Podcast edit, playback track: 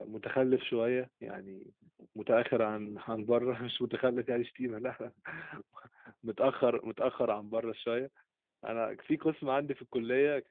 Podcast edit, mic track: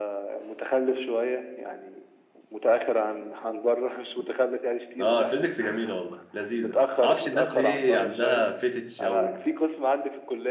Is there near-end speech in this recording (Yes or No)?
Yes